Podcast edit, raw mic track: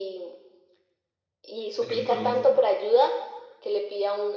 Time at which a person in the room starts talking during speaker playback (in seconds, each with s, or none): 1.6 s